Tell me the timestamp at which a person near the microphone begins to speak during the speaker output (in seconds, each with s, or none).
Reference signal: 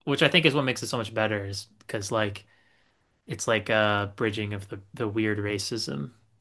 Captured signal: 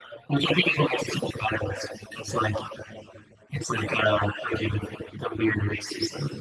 none